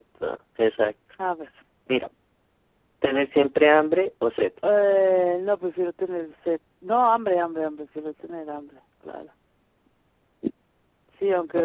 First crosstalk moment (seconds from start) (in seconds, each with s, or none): none